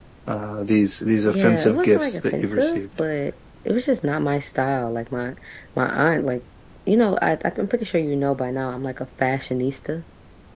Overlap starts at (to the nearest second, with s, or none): 1 s